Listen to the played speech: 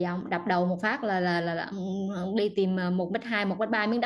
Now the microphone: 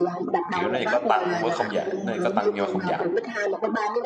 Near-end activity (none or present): present